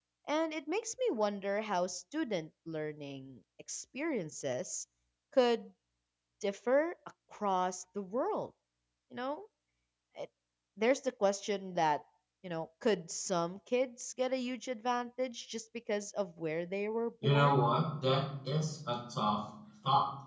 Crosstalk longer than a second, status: none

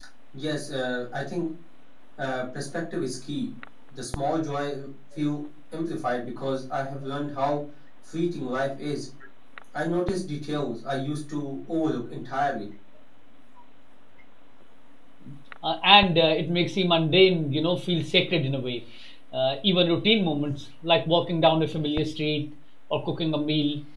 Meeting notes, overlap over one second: none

